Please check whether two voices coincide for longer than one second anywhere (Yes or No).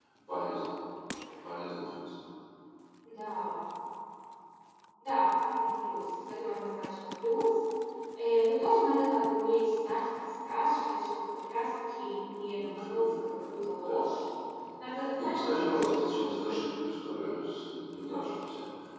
Yes